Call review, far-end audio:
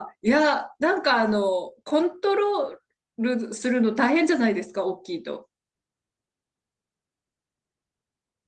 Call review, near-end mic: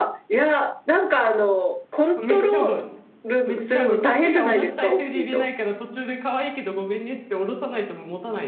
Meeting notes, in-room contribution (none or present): present